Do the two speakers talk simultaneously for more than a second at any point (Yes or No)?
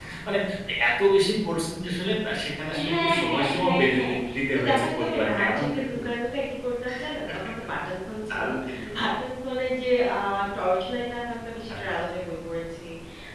Yes